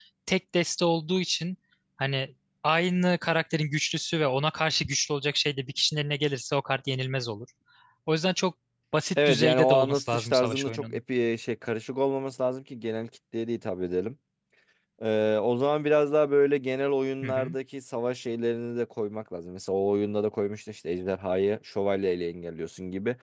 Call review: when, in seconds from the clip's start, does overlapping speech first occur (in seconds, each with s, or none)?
9.2 s